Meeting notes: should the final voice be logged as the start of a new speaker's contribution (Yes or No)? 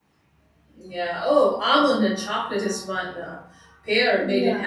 No